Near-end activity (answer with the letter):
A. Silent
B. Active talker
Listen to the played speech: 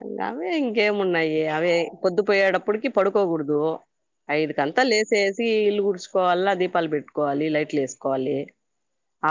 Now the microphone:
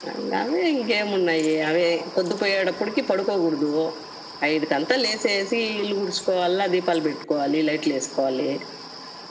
A